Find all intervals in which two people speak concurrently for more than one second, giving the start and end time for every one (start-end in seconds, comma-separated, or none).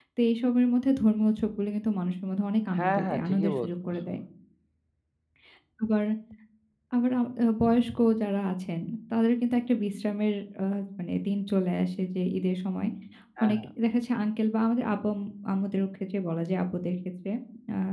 2.8-4.2